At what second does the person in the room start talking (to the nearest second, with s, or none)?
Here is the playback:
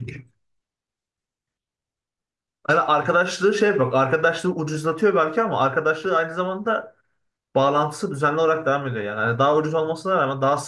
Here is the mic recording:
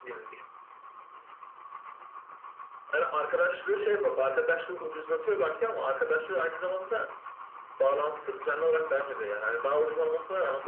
none